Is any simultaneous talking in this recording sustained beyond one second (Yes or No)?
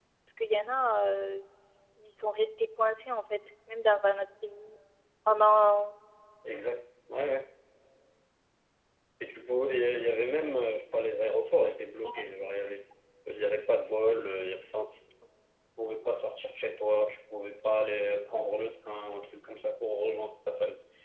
No